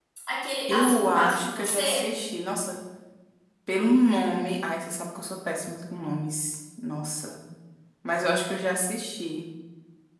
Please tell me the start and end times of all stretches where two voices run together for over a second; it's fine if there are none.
0.7-2.1

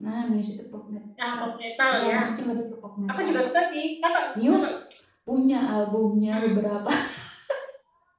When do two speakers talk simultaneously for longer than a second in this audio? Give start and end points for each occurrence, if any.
none

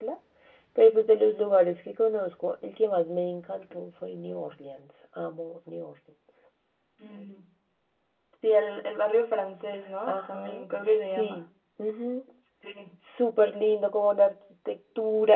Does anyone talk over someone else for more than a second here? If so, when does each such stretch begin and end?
none

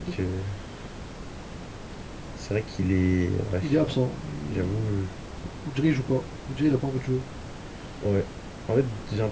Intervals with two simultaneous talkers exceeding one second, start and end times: none

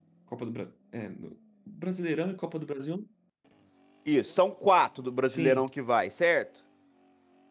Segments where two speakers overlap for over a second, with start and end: none

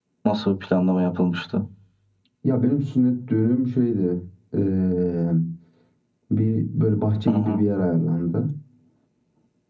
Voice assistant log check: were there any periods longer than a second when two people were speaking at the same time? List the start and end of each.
none

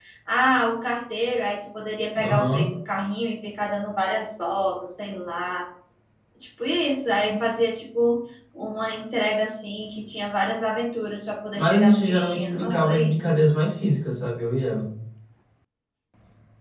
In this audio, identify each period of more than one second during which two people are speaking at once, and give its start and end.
11.5-13.1

